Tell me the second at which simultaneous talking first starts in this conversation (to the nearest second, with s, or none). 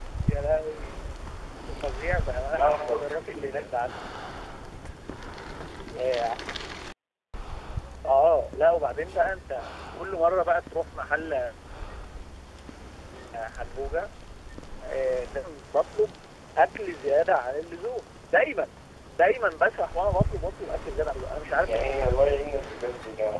3 s